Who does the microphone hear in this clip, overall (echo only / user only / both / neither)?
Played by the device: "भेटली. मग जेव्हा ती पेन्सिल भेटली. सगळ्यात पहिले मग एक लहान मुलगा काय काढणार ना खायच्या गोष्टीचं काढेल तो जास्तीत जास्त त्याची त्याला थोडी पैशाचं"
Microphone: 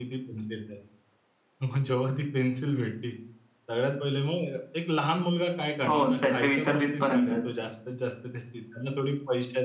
both